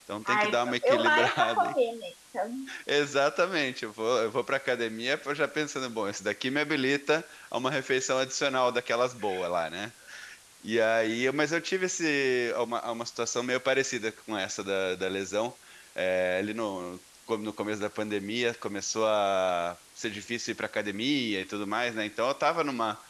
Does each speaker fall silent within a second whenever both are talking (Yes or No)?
No